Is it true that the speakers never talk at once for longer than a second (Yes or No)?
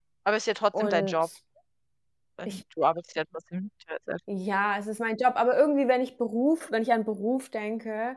Yes